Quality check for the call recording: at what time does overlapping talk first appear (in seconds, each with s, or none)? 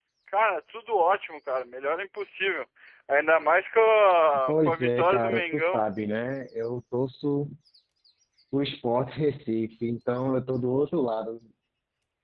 4.5 s